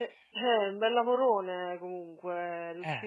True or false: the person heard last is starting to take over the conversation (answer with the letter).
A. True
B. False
B